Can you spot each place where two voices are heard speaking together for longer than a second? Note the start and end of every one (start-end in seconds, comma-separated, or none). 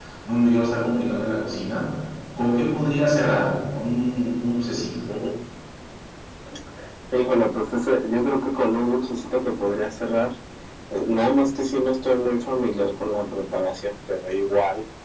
none